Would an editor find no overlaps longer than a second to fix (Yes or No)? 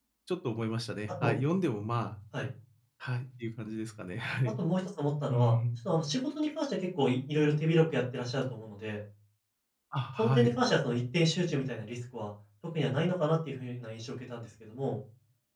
Yes